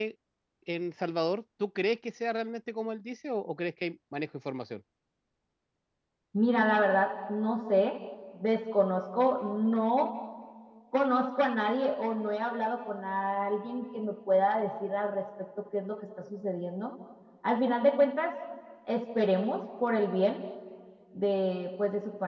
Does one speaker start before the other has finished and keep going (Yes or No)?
No